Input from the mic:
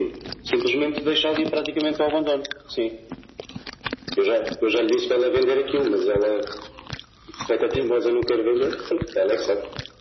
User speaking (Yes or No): No